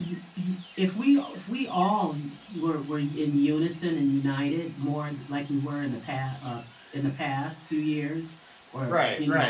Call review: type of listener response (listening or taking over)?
listening